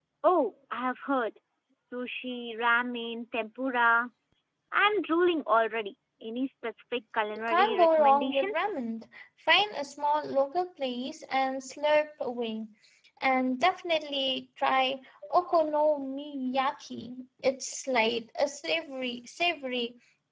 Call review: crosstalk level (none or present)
present